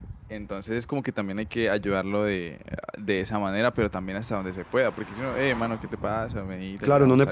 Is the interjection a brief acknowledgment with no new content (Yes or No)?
No